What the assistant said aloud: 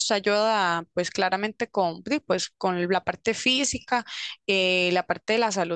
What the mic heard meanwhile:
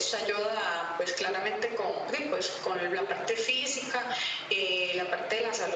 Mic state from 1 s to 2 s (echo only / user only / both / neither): echo only